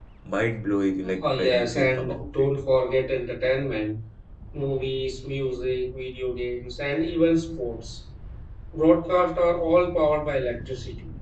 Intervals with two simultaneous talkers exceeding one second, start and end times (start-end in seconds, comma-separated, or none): 1.0-2.5